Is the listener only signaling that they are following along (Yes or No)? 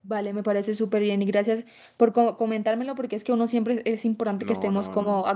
No